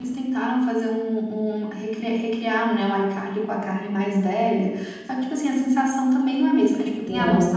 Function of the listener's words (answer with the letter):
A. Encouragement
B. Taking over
A